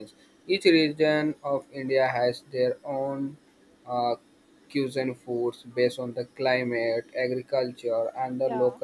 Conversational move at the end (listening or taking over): listening